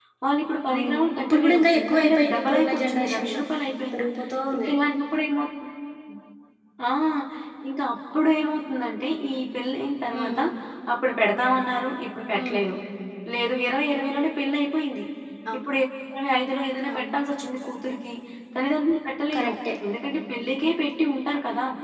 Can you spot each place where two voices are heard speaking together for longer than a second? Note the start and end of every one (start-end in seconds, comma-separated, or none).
0.7-3.3